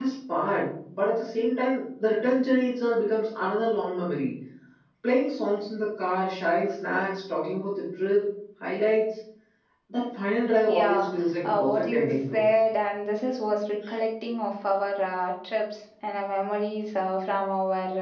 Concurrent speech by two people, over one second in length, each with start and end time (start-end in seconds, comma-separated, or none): 10.7-12.4